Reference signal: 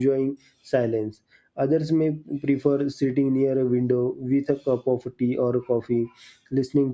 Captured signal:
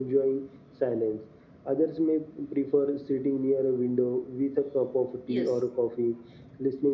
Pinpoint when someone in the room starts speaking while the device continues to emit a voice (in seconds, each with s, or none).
5.2 s